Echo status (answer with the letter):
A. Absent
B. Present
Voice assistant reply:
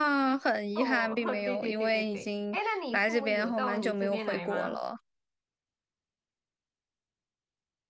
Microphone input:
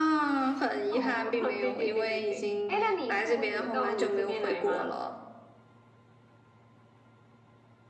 B